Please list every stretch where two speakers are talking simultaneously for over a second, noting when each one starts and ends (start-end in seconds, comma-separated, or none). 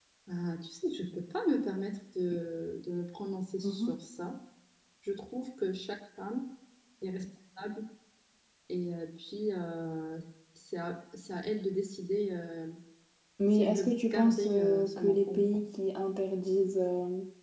13.5-15.6